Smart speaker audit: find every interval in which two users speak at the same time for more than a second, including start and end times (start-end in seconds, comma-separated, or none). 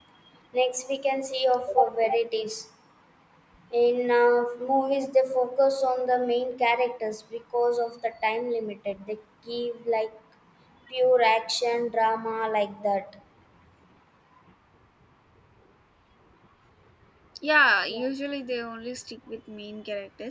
none